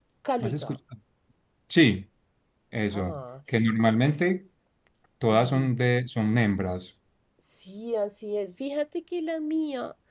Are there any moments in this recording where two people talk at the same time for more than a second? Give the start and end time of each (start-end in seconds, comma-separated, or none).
none